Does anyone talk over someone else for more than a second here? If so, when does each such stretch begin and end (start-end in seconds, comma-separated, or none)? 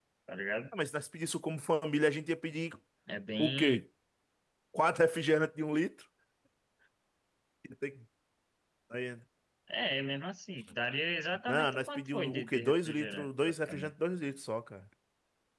11.5-13.9